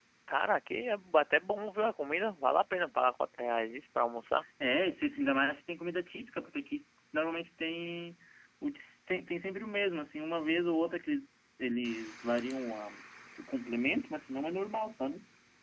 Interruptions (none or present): none